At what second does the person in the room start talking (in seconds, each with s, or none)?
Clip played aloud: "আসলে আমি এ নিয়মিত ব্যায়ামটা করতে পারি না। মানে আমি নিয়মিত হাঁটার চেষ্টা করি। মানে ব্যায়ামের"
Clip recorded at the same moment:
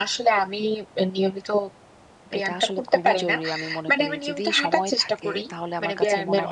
2.4 s